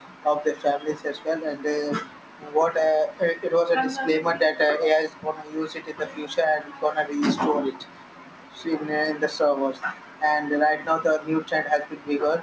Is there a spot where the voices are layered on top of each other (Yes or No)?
No